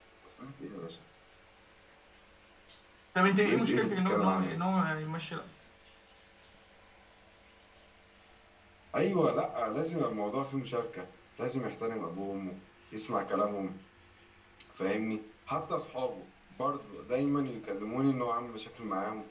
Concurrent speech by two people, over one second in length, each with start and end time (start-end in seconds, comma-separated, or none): 3.2-4.6